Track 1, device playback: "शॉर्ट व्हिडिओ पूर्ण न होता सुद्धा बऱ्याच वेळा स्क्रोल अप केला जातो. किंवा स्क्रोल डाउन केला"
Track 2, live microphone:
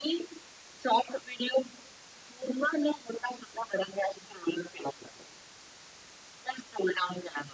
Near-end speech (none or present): none